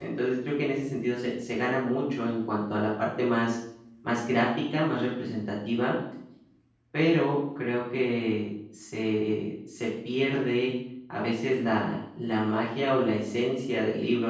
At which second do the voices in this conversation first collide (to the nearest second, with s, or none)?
none